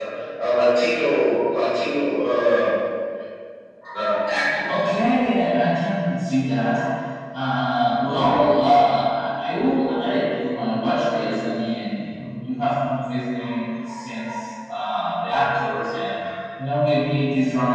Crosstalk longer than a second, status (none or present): none